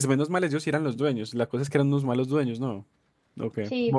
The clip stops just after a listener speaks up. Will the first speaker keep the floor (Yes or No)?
No